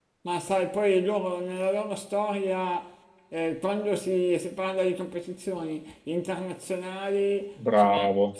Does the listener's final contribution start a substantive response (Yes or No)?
No